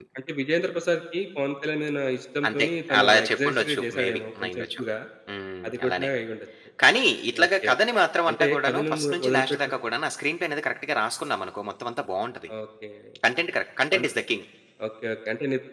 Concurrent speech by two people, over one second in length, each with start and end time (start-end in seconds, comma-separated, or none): 3.0-4.8, 8.3-9.6